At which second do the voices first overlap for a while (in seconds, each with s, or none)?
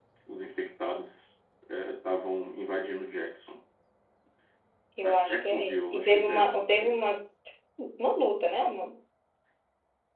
5.0 s